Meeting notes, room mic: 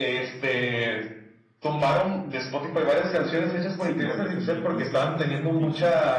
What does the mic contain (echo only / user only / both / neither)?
both